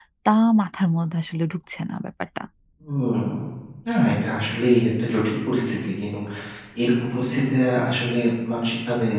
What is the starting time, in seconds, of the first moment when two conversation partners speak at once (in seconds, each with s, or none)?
none